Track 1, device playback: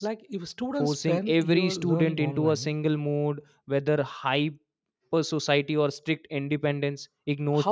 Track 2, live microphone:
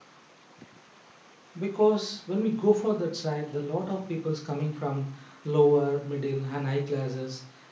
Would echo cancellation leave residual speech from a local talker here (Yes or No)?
Yes